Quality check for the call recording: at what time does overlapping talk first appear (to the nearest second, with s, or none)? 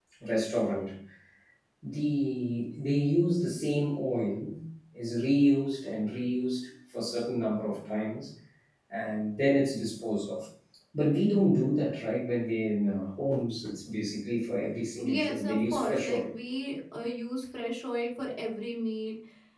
15 s